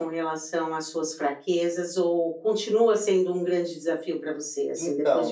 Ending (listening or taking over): taking over